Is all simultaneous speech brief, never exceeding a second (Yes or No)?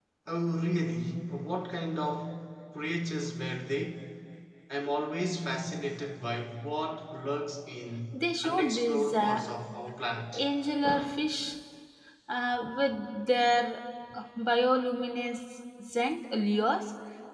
No